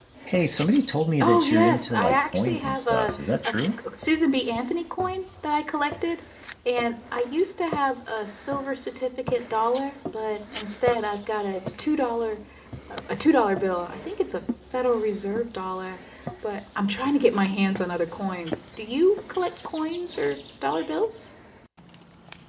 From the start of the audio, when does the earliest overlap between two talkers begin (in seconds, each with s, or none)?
1.2 s